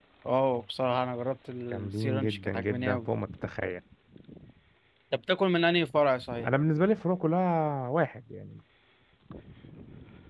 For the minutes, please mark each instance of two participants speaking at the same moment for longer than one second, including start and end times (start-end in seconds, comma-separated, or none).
1.7-3.1